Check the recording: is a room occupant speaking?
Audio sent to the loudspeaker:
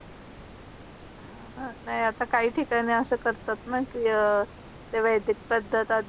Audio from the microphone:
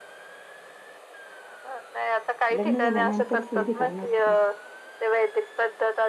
Yes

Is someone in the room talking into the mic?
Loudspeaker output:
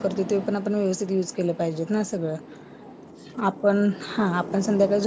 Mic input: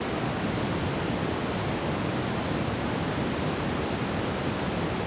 No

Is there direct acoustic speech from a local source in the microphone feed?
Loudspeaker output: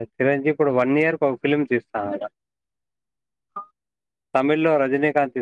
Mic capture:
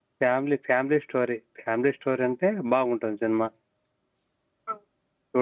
Yes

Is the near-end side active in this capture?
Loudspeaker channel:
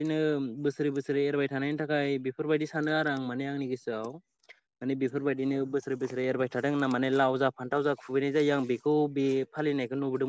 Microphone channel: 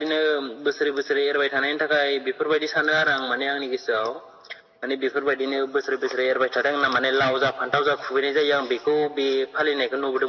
No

